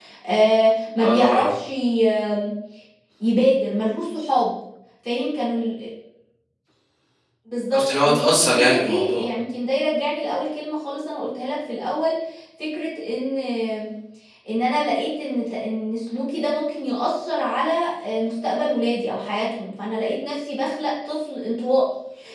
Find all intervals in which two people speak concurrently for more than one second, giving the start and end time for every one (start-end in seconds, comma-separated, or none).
7.7-9.3